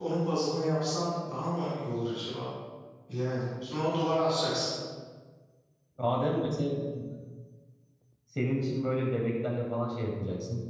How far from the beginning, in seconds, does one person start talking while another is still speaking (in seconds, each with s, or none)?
none